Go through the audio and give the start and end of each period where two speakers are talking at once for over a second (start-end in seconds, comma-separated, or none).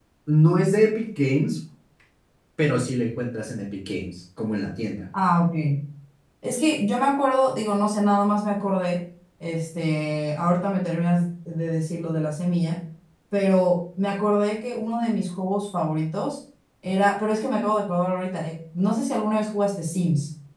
none